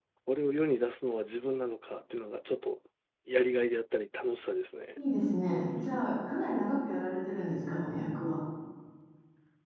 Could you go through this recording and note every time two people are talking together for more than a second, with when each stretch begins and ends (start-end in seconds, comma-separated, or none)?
none